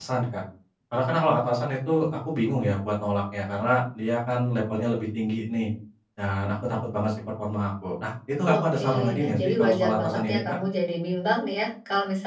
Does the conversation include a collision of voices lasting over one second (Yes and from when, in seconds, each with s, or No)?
Yes, from 8.4 s